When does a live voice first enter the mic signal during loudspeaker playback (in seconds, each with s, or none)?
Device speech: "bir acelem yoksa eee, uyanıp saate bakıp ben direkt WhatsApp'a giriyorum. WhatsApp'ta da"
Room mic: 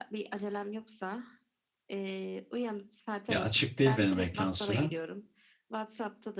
3.3 s